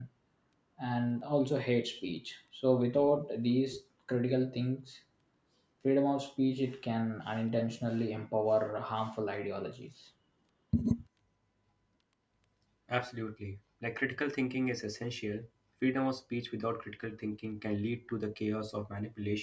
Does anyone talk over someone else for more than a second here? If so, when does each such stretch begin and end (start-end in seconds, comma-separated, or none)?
none